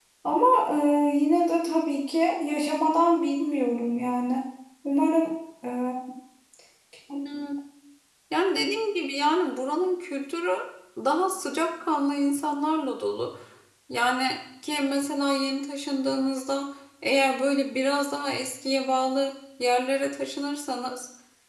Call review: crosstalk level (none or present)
none